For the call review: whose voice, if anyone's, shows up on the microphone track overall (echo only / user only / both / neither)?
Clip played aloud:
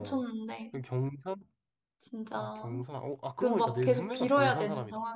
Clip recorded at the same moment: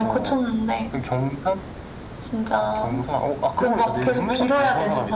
echo only